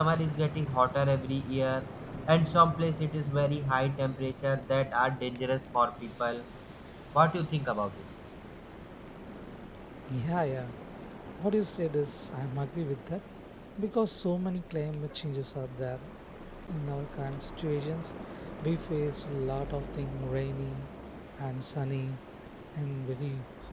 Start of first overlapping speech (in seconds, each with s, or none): none